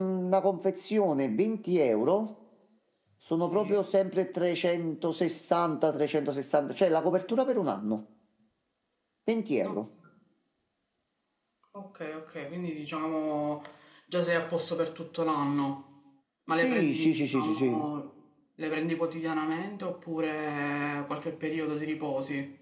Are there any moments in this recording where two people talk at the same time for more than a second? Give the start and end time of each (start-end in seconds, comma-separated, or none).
16.6-17.9